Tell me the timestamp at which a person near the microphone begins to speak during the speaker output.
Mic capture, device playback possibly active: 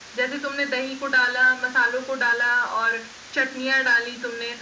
none

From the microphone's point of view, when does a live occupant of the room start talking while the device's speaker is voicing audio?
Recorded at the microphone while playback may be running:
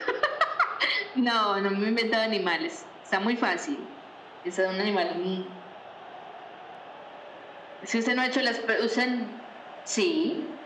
none

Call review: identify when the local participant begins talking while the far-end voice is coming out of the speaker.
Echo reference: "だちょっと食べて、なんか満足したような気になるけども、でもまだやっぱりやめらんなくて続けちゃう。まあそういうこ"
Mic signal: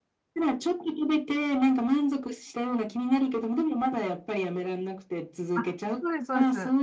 5.5 s

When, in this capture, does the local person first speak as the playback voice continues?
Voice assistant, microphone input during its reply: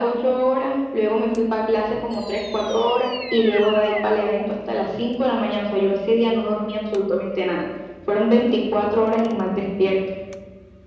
none

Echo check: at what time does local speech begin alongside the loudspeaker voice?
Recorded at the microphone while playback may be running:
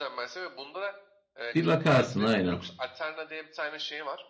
1.5 s

